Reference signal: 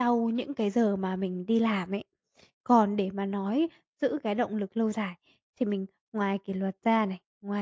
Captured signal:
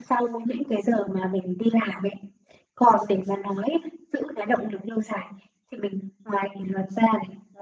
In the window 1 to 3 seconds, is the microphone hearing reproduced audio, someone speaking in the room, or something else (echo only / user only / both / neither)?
echo only